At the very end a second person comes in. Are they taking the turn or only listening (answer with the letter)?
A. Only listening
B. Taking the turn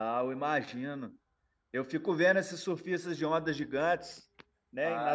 B